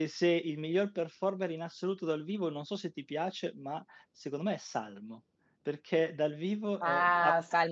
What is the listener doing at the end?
taking over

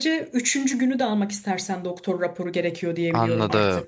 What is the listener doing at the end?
taking over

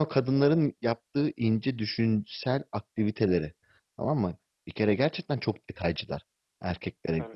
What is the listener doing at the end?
listening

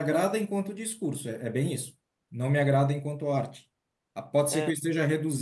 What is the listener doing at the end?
listening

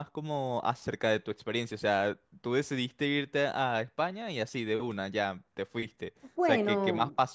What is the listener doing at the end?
listening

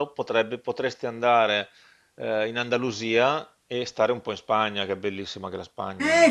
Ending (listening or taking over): taking over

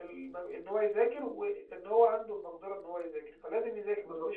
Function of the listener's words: taking over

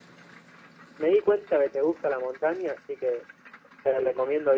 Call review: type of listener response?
listening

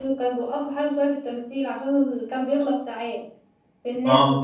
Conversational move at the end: taking over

